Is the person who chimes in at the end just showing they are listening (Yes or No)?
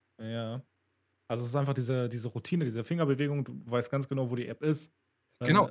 No